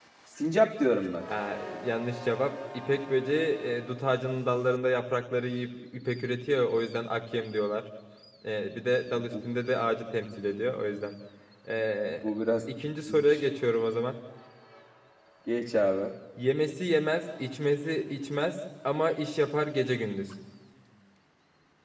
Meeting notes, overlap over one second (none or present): none